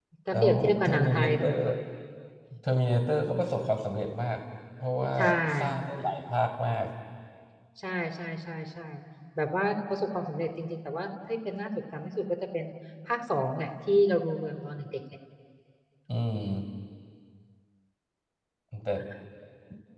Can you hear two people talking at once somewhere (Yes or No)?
Yes